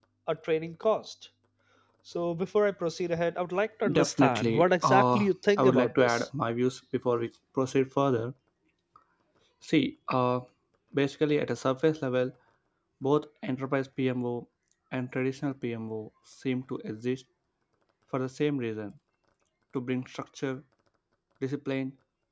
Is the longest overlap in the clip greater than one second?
Yes, from 3.8 s

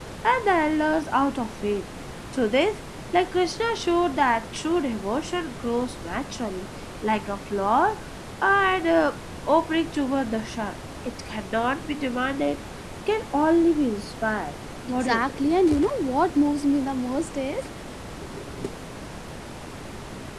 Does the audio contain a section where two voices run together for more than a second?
No

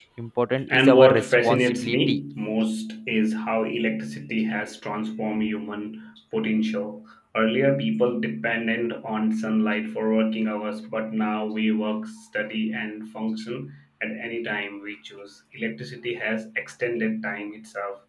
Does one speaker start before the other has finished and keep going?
Yes, from 0.7 s

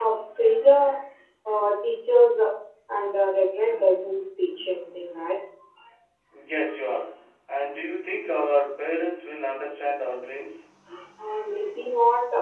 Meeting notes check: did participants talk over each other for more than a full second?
No

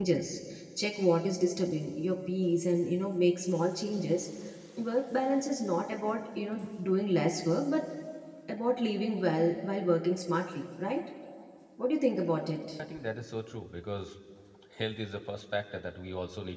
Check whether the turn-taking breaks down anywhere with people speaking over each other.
No

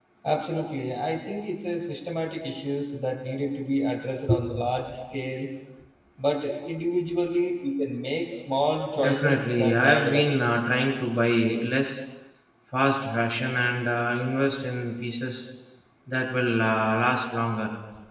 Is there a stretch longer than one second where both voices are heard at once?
Yes, from 9.0 s

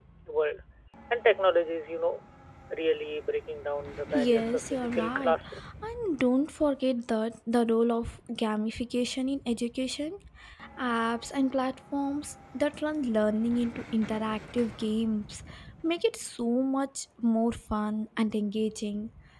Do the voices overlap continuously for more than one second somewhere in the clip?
Yes, from 4.1 s

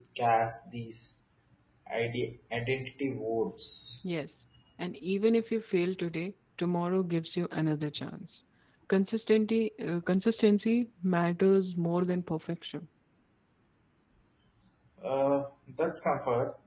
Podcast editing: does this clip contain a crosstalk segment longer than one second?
No

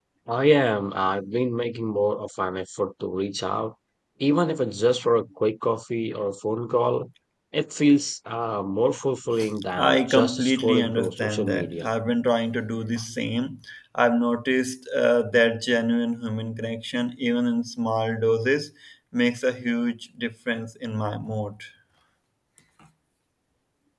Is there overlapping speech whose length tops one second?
Yes, from 9.8 s

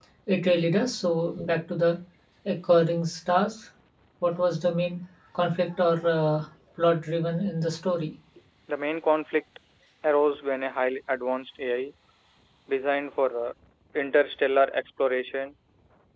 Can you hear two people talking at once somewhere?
No

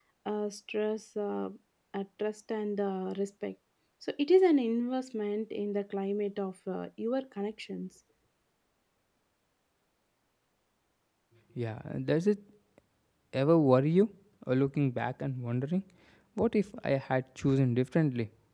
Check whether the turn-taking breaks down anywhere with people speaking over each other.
No

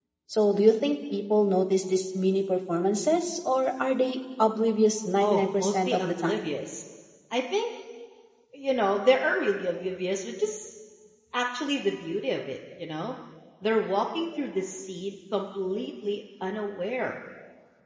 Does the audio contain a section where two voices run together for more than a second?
Yes, from 5.2 s

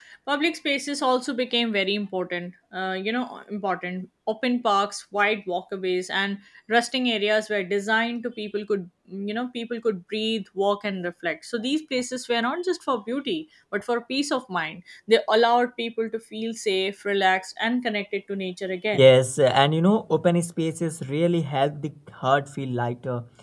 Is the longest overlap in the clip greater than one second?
No

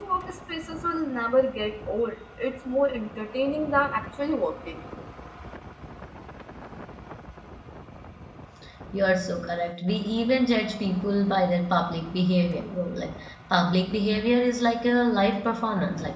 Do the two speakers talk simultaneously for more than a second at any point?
No

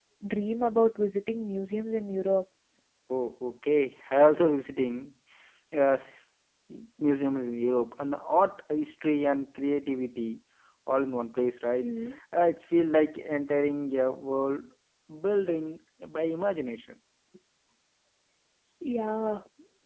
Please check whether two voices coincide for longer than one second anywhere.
No

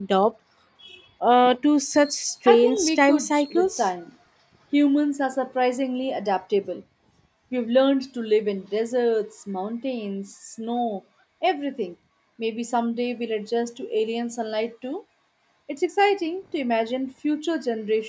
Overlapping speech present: Yes, from 2.5 s

